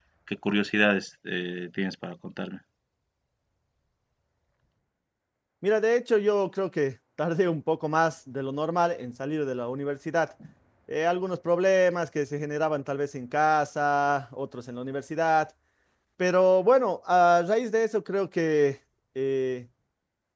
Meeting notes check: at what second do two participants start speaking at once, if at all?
none

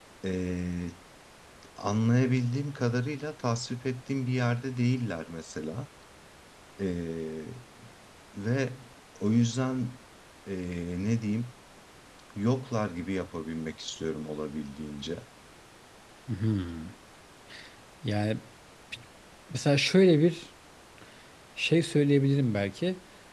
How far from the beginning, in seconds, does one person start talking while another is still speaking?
none

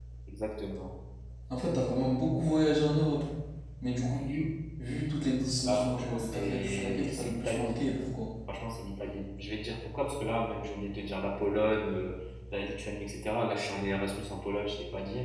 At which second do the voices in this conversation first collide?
5.6 s

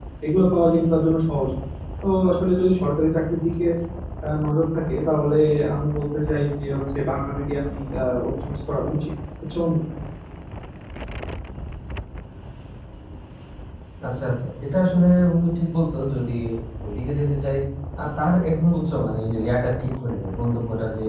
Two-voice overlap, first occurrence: none

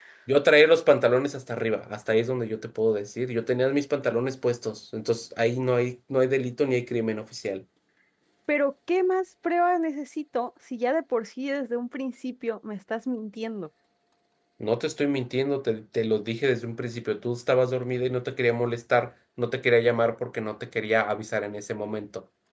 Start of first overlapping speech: none

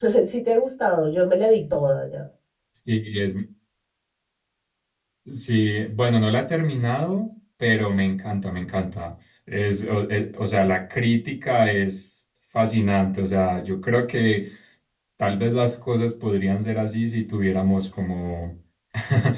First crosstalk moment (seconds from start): none

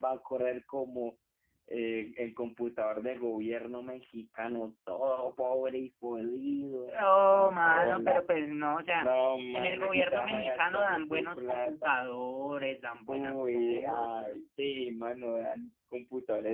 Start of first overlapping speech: 7.0 s

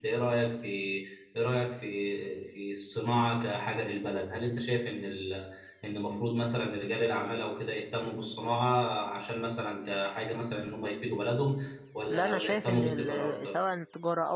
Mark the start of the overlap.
12.1 s

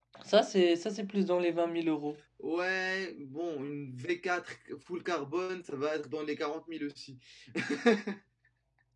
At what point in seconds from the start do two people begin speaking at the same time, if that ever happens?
none

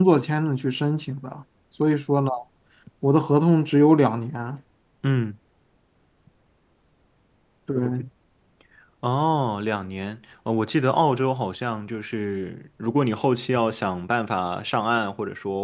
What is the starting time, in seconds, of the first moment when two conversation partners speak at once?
none

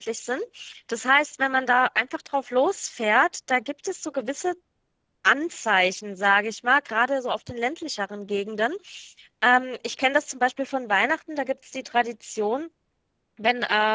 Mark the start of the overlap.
none

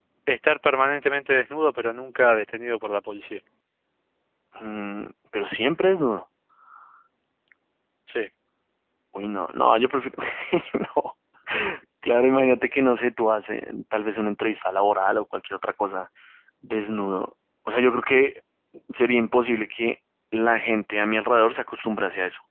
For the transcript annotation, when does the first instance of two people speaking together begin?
none

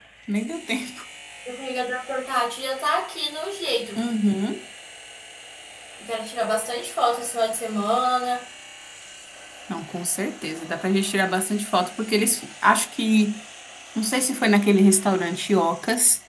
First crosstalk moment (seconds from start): none

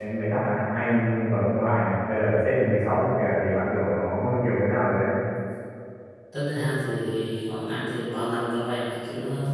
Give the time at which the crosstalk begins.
none

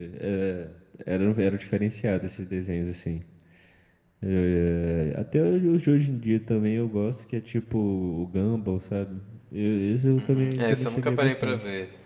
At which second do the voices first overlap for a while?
10.2 s

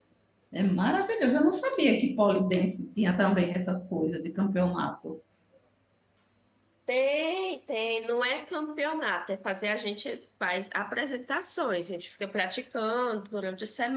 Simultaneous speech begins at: none

